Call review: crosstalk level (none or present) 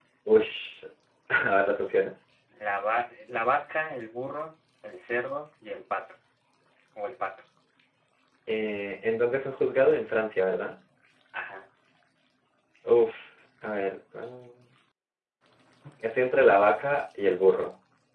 none